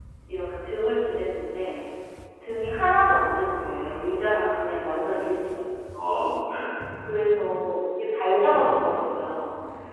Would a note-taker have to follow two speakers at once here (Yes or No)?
Yes